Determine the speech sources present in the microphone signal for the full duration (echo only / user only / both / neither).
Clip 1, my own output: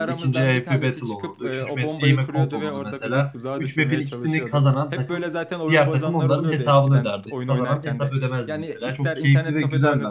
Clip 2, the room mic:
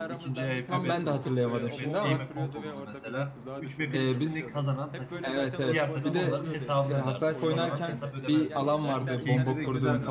both